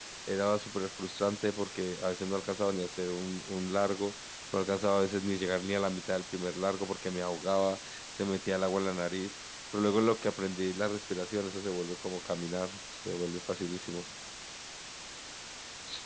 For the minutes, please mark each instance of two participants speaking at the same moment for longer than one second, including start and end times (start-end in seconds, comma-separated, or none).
none